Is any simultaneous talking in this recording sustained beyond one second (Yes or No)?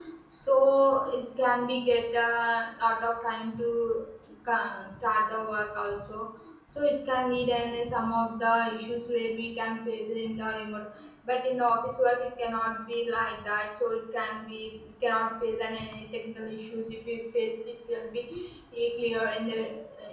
No